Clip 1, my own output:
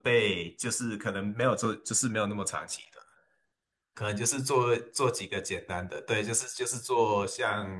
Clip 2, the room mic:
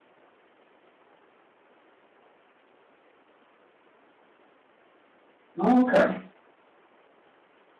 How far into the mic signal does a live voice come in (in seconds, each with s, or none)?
5.5 s